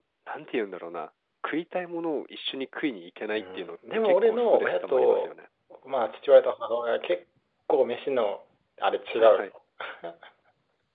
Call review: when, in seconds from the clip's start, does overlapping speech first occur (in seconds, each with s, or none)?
3.3 s